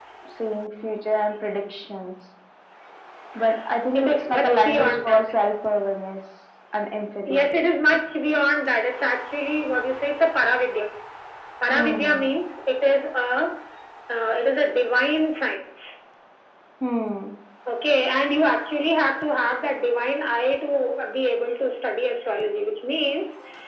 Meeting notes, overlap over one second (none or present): present